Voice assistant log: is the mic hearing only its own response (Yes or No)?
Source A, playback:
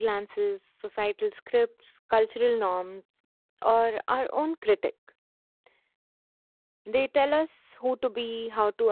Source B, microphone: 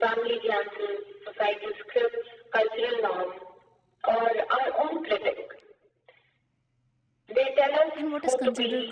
No